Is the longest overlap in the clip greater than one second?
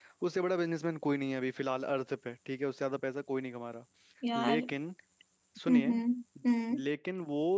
No

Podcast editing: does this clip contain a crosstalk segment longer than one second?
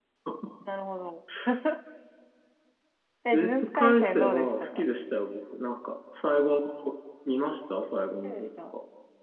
Yes, from 3.3 s

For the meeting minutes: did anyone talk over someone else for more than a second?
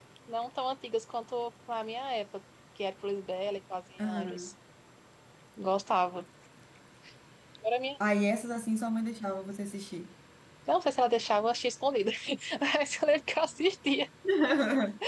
No

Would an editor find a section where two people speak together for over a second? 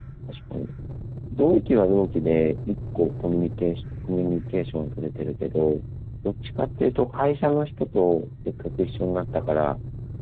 No

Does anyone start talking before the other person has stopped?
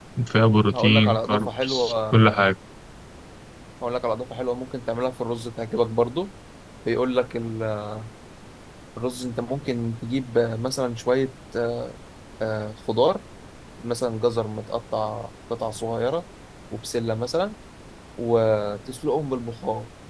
Yes, from 0.7 s

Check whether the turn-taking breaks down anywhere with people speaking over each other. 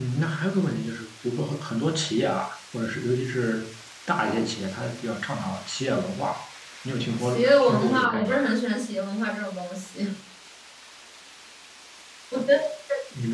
Yes, from 7.2 s

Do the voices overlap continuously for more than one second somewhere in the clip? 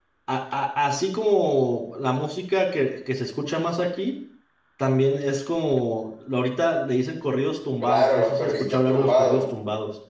Yes, from 7.8 s

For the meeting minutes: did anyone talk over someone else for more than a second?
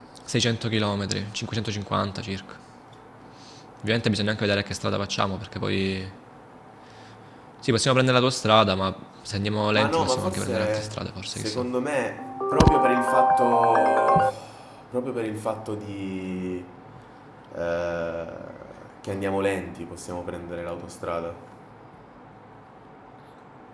Yes, from 9.7 s

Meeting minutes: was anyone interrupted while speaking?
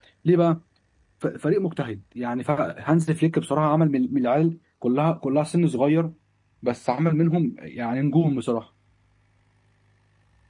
No

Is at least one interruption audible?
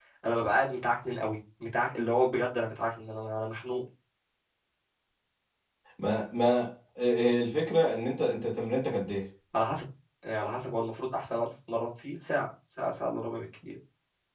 No

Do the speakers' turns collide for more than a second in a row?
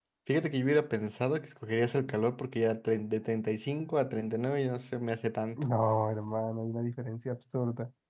No

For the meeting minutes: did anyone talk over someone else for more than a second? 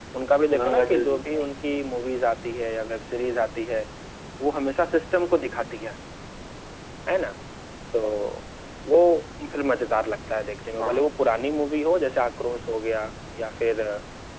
Yes, from 0.6 s

